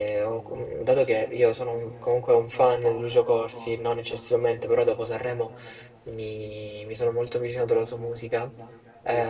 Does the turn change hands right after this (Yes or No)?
No